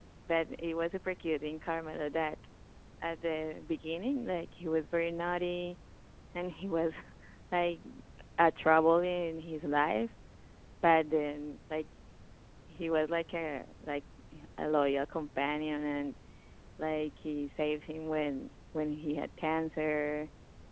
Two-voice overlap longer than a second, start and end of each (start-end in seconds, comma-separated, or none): none